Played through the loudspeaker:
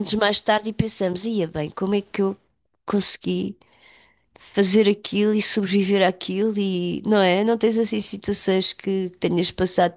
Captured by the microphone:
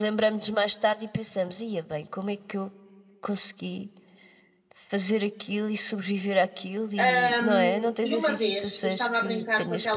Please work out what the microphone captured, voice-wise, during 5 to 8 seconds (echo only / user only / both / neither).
both